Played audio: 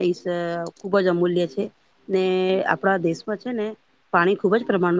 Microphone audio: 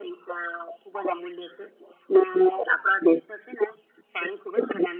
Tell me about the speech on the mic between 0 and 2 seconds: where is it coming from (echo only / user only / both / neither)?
echo only